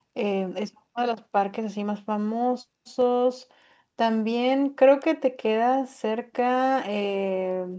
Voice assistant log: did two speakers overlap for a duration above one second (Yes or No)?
No